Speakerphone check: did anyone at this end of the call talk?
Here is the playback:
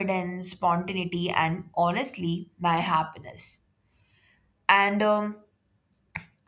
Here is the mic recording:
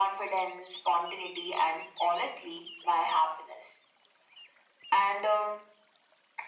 No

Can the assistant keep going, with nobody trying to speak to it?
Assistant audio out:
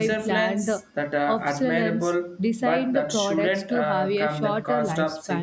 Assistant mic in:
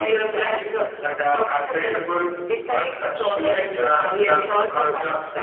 Yes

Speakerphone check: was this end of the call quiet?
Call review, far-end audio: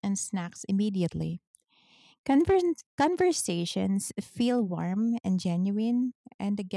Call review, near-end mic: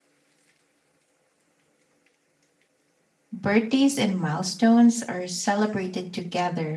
No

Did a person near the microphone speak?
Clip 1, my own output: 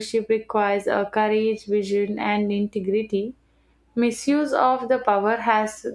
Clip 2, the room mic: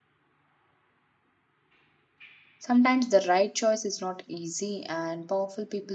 Yes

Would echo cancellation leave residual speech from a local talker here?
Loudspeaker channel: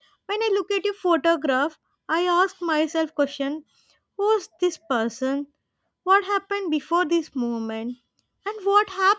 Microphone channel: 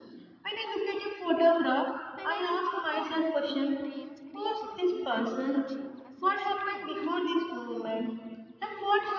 Yes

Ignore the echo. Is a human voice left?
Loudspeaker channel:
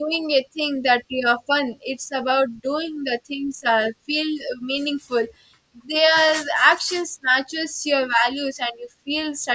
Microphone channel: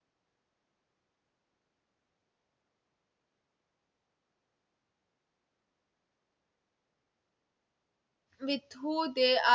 Yes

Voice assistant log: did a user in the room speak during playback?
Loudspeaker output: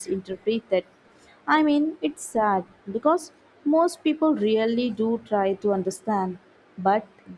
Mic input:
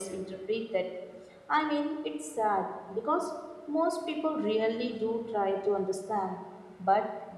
No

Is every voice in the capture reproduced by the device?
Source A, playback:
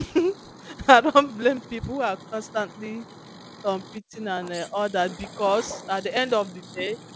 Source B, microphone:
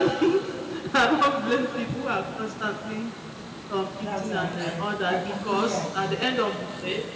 No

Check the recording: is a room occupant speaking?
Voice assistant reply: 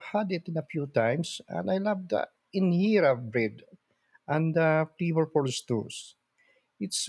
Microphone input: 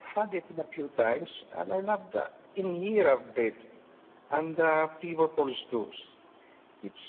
No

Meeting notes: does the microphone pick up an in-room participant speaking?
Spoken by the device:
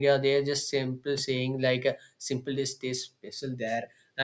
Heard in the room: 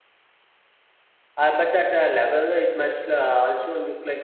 Yes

